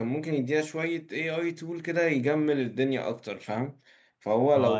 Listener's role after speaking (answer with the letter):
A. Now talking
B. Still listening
A